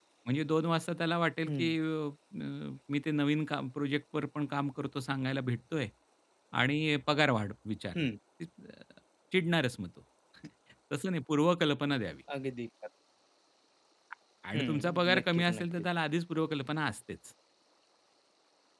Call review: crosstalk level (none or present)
present